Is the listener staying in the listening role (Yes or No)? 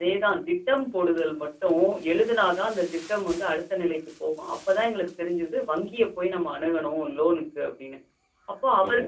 Yes